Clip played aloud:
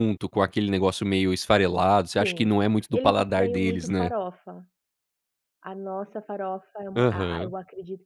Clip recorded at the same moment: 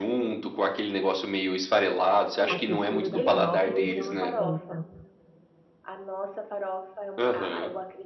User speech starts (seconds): 2 s

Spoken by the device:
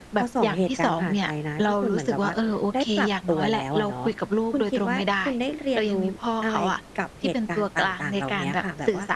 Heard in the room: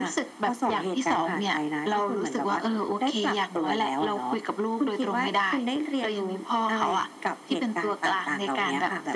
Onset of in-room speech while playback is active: none

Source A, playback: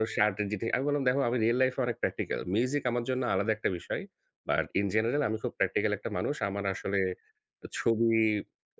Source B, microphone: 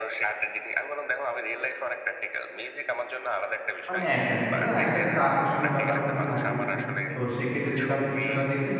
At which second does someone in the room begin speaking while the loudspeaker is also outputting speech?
4 s

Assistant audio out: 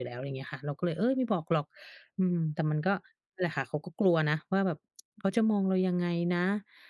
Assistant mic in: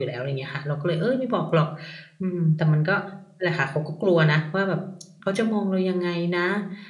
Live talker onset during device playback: none

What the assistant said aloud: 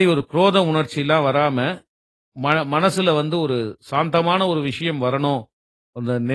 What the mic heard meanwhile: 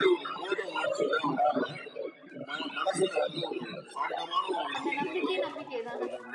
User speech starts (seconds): 5 s

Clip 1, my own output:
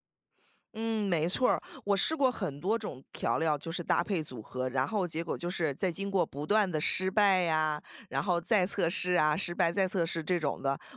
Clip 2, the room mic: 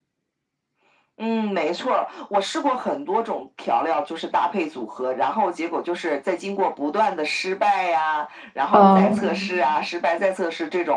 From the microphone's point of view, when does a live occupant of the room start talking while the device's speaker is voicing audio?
9 s

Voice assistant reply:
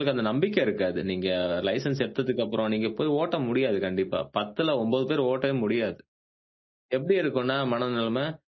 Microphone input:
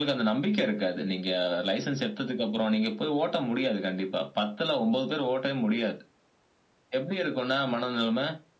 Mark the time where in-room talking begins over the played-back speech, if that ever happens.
none

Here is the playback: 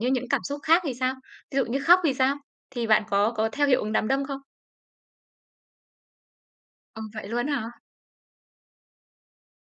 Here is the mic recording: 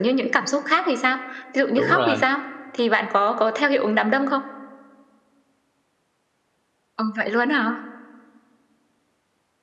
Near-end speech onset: 2 s

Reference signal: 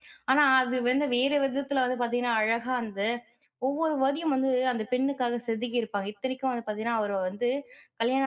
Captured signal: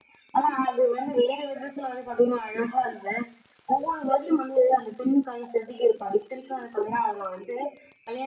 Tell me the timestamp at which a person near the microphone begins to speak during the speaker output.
none

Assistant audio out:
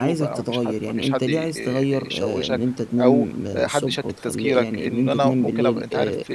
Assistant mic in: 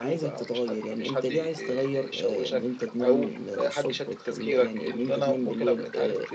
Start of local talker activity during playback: none

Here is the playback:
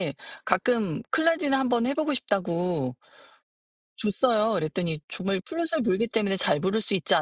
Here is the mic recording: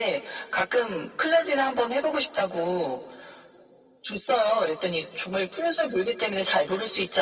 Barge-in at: none

